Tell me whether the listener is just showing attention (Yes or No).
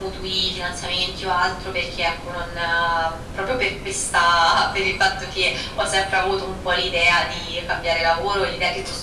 Yes